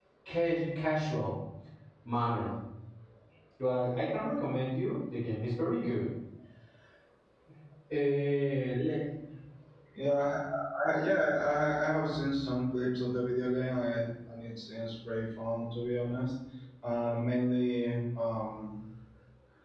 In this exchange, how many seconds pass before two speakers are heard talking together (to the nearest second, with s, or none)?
none